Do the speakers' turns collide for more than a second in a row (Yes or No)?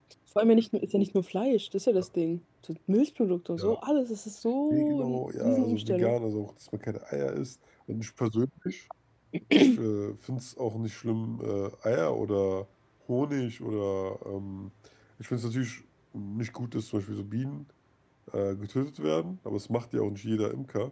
Yes